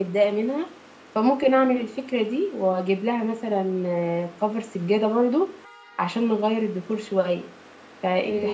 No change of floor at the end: No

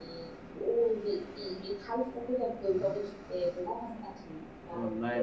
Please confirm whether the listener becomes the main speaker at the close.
Yes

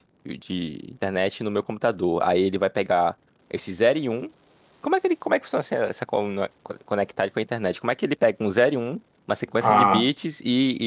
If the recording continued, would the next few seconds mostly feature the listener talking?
No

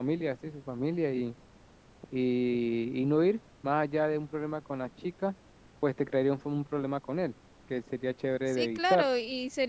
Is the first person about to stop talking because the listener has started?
Yes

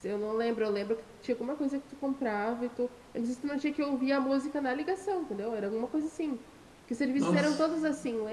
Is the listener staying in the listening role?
Yes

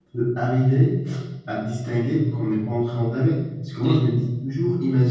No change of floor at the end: Yes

